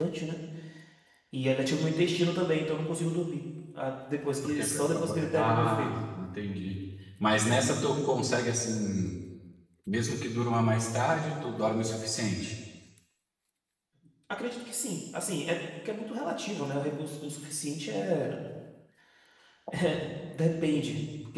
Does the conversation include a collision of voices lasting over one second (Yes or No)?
Yes